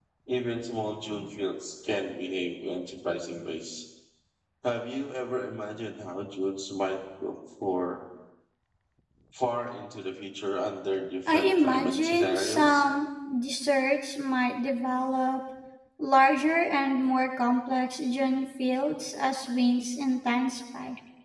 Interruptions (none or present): present